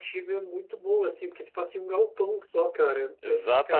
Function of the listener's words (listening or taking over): taking over